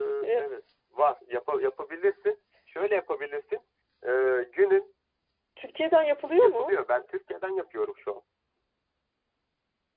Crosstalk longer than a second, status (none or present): none